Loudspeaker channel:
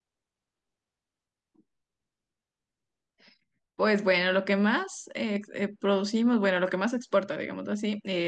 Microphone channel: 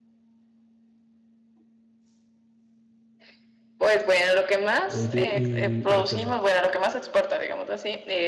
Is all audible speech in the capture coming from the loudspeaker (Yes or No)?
No